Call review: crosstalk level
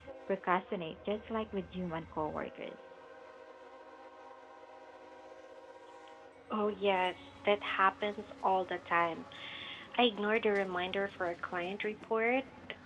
none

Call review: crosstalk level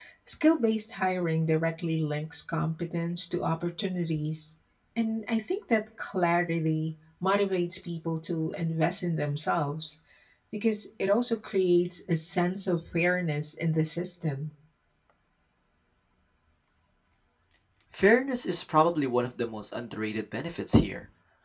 none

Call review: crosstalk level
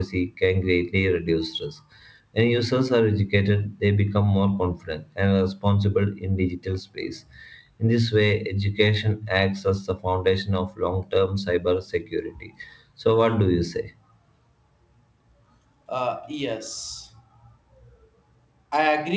none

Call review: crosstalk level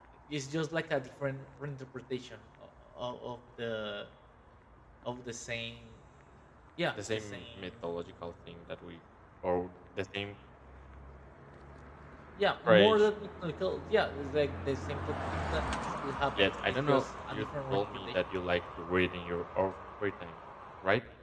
present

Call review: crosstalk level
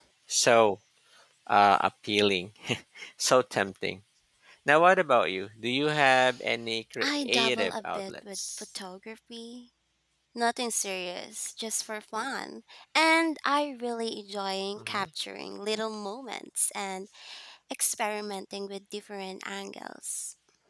present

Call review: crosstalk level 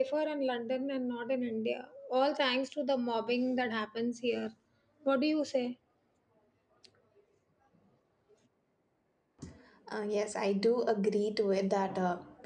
none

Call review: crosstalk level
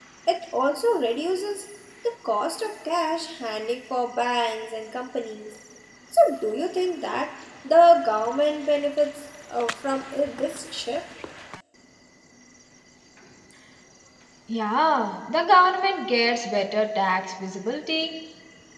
none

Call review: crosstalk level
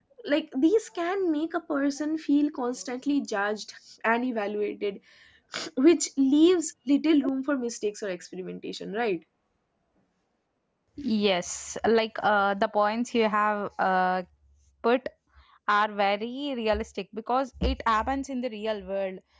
none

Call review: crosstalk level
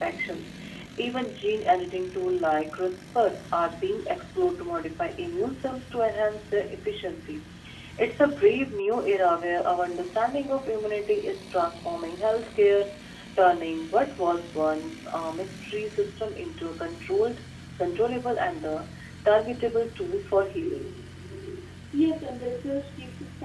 none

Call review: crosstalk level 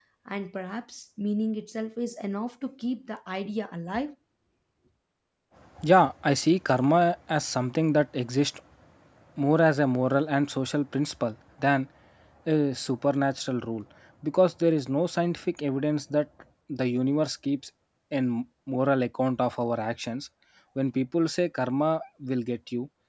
none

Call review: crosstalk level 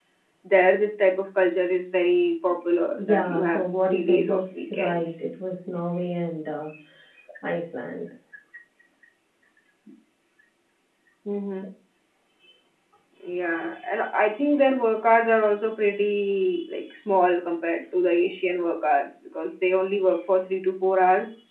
present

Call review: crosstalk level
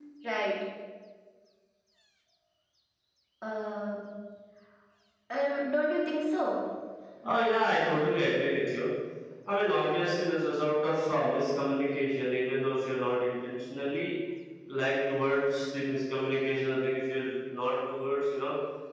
none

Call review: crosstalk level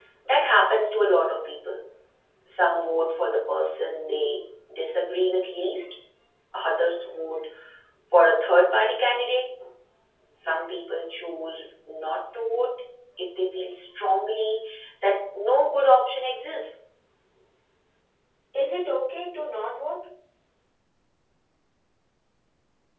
none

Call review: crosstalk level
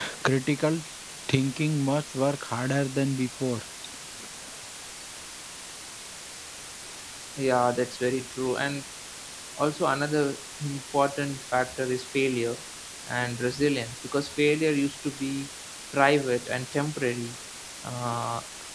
none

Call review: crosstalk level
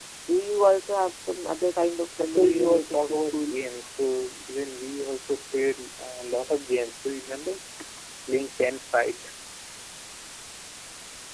present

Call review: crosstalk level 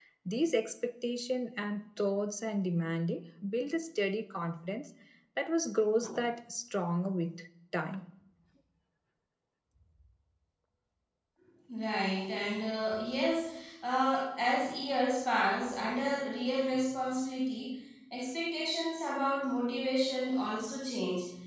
none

